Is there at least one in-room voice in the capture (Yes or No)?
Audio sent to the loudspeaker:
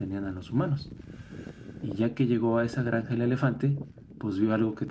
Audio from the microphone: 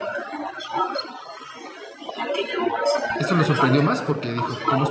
Yes